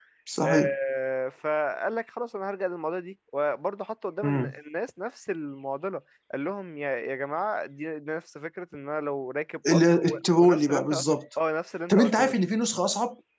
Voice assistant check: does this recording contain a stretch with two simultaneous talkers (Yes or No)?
Yes